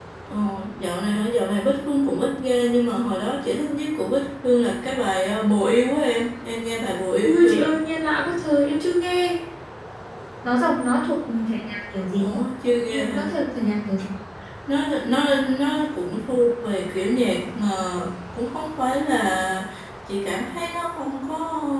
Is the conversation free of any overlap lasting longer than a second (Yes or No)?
Yes